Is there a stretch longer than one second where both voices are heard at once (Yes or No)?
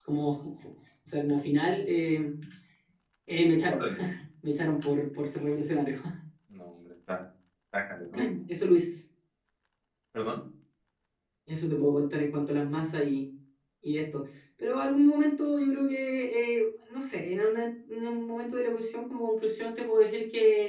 No